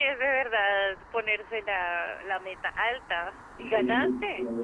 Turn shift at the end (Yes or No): Yes